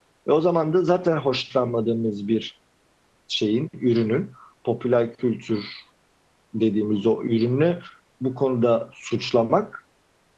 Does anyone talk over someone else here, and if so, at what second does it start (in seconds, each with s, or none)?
none